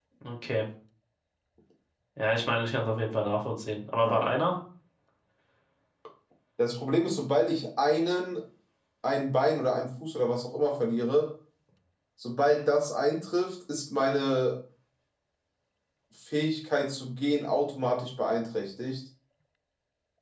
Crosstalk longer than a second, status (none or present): none